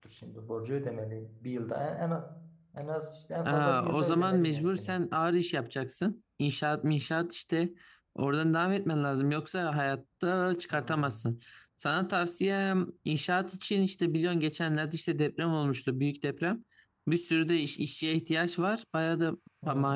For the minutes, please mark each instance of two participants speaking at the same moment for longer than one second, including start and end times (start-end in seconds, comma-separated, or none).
3.4-5.0